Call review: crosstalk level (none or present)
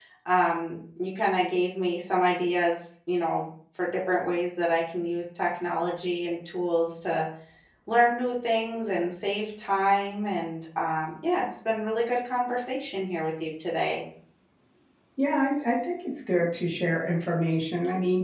none